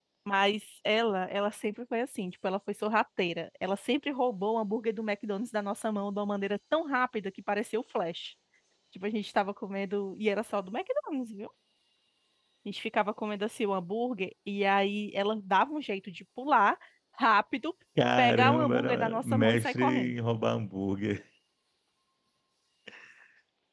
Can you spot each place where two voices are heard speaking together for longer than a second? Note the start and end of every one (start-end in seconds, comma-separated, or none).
18.2-20.1